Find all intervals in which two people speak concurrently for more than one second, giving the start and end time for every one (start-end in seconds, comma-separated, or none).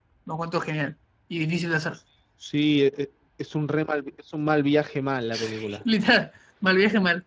none